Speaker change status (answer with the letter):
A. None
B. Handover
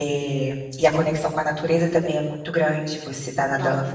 A